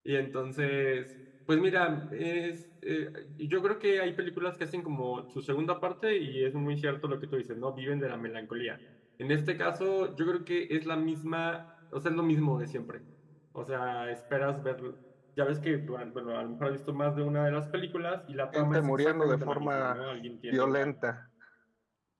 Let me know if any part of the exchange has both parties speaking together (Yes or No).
Yes